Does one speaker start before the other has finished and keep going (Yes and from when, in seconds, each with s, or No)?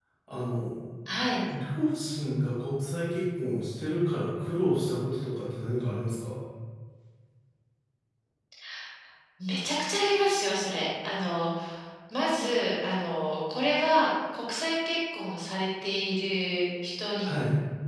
No